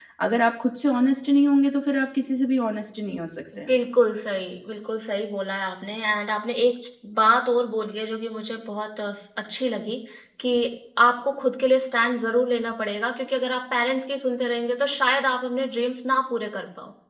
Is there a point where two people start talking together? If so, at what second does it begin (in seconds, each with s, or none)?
none